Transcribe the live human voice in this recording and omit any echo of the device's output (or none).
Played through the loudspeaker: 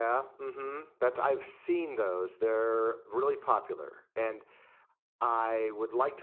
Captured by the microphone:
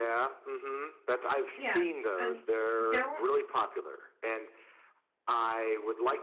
Yes. And don't